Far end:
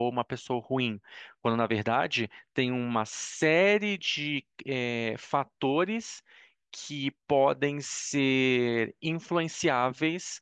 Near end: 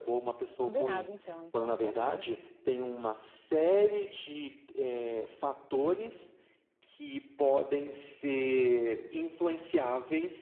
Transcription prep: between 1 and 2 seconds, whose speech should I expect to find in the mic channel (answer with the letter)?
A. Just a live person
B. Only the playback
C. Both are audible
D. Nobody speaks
C